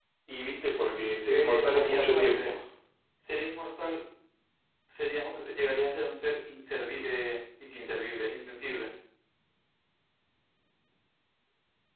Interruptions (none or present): present